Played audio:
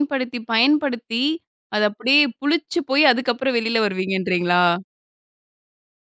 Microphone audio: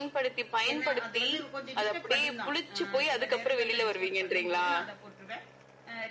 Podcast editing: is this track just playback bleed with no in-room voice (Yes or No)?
No